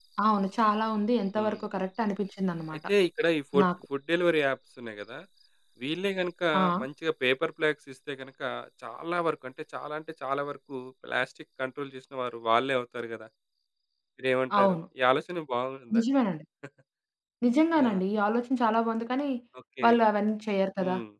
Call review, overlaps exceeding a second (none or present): none